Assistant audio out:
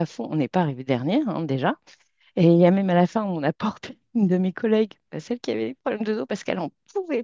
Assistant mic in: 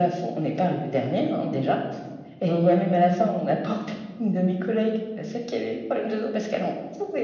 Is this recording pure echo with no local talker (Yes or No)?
Yes